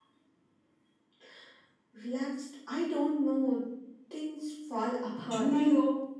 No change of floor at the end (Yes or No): No